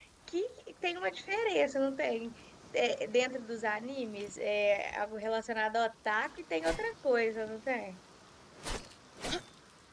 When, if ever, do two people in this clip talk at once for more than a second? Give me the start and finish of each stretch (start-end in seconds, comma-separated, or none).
none